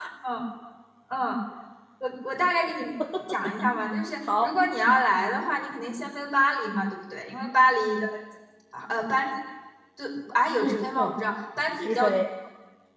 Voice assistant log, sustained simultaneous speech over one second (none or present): none